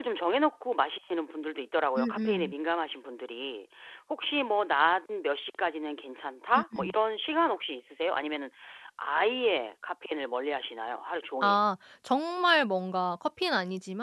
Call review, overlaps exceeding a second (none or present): none